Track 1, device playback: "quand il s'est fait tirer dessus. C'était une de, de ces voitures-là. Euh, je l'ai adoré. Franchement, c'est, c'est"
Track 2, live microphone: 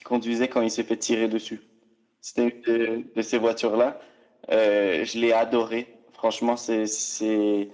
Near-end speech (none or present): none